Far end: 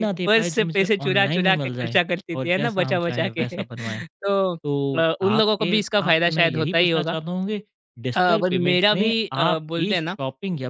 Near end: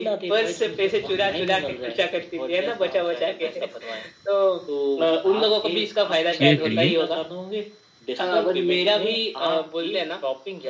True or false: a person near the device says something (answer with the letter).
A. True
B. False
A